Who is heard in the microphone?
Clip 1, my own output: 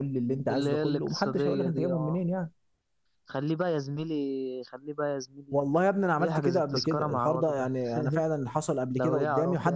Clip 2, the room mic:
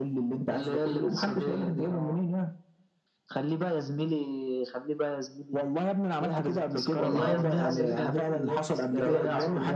both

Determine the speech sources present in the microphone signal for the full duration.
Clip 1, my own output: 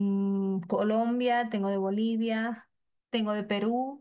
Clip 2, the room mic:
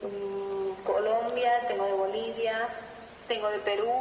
echo only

